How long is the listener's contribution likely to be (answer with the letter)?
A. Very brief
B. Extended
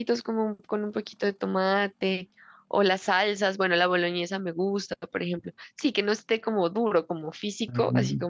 B